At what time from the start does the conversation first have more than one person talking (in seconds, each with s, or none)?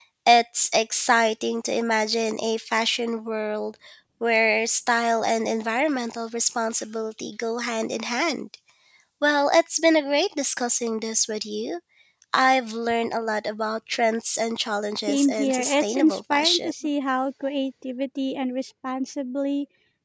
15.1 s